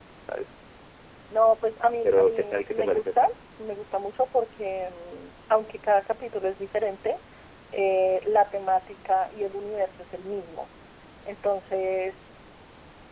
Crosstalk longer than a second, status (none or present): present